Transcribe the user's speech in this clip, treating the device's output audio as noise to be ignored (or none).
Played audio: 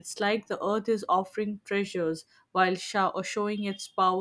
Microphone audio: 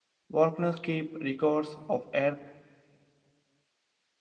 Volcanoes keep records of Earth,